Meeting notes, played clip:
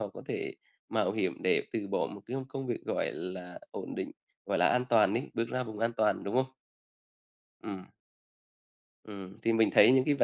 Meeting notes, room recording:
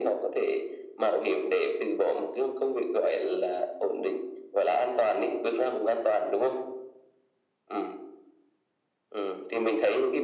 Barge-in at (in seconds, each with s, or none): none